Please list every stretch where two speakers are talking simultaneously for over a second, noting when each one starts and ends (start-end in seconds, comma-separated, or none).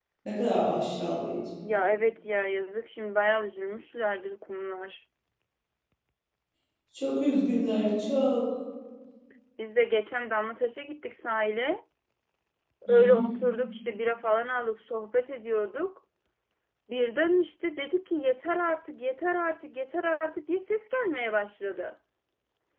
none